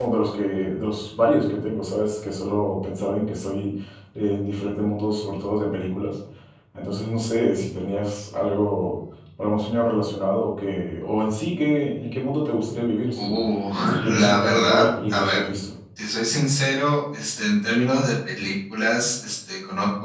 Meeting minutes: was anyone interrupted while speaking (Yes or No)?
Yes